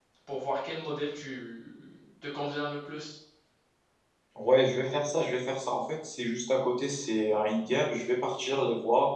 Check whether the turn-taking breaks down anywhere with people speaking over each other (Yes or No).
No